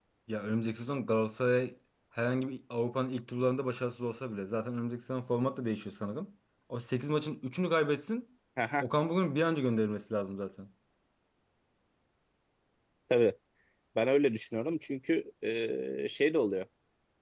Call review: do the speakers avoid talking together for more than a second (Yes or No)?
Yes